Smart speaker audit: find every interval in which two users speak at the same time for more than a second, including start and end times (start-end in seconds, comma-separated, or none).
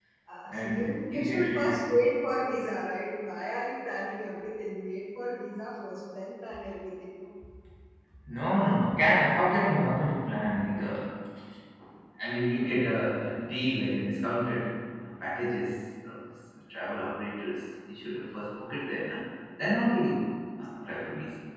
0.5-1.9